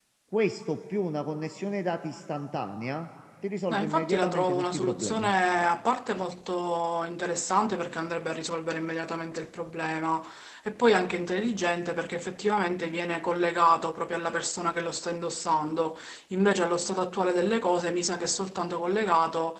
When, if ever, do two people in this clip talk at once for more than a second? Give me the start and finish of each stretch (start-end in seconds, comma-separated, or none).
3.7-5.3